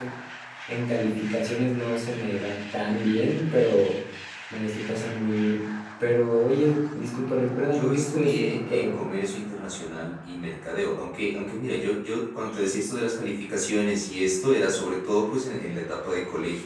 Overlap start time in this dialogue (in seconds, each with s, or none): 7.7 s